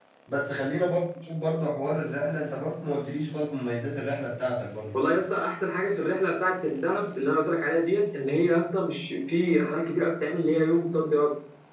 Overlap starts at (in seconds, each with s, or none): none